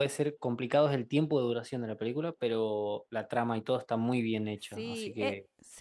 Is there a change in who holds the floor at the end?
Yes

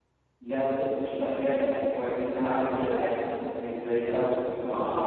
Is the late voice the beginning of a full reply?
Yes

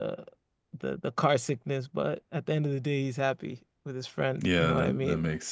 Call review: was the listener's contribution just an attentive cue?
No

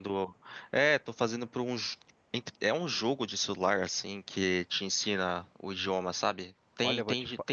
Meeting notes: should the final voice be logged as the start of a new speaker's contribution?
Yes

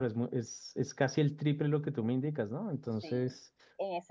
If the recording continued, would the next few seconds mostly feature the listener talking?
Yes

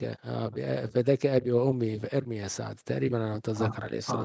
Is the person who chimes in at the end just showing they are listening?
No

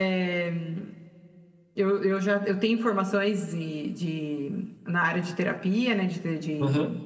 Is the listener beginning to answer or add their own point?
No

